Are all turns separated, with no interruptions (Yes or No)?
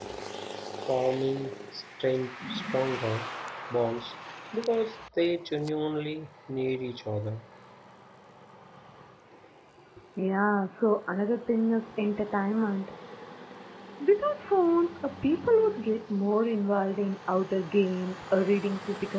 Yes